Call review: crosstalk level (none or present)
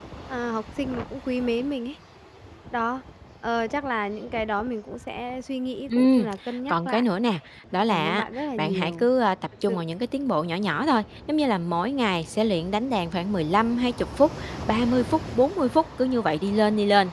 present